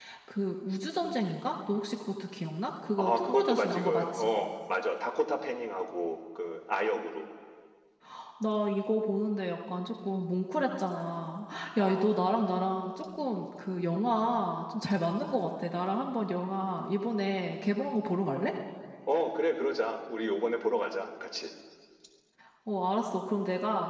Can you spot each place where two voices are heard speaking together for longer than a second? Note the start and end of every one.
2.9-4.3

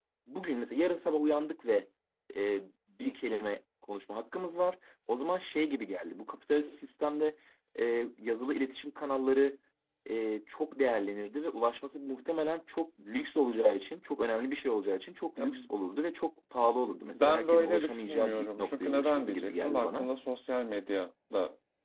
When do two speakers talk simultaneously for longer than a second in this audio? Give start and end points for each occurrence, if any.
17.1-20.1

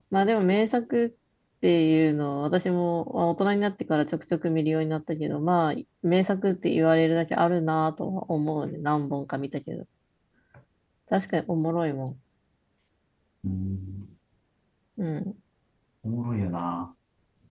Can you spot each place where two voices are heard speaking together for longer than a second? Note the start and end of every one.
none

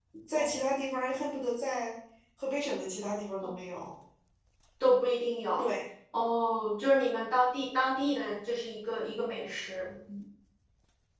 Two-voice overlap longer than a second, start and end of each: none

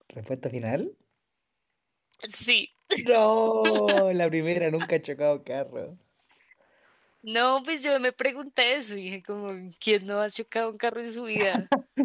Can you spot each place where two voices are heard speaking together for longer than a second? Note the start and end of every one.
none

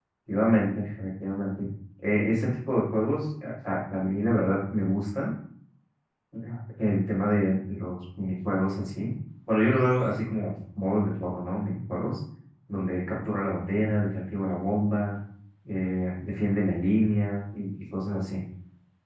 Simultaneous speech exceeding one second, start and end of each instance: none

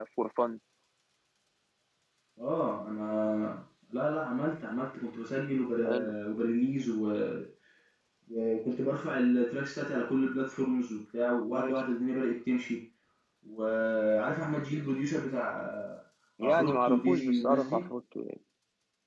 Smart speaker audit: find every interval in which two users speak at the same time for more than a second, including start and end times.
16.4-17.9

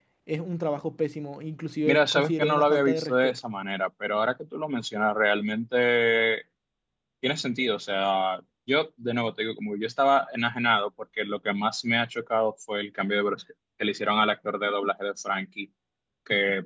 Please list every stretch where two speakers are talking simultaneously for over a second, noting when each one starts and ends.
1.8-3.4

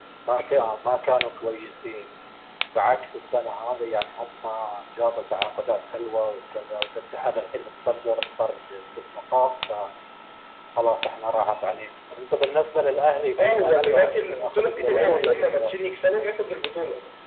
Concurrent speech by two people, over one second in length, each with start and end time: 13.4-15.7

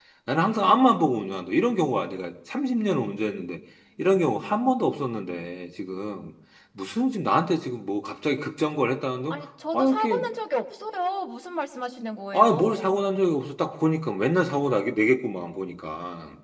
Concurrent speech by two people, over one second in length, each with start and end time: none

